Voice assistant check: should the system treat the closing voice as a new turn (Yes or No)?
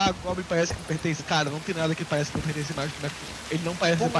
Yes